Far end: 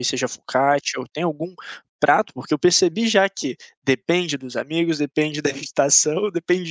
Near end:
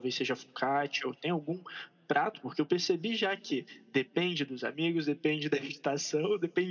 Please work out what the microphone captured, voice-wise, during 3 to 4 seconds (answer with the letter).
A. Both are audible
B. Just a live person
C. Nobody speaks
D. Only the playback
D